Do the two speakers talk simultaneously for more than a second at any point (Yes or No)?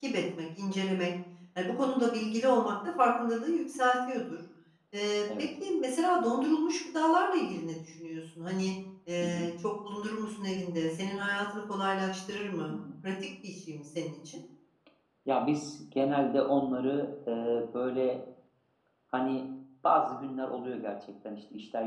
No